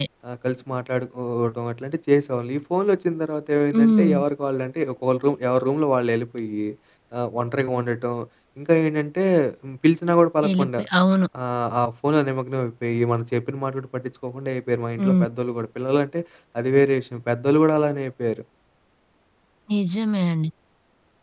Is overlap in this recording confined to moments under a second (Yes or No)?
Yes